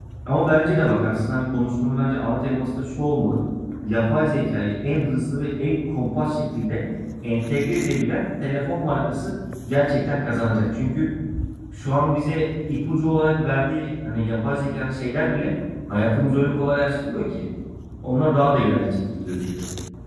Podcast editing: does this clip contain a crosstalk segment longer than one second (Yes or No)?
No